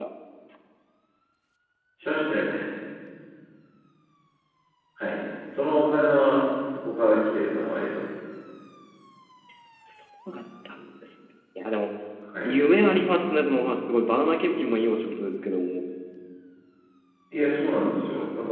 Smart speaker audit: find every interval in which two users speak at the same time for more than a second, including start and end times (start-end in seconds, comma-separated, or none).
none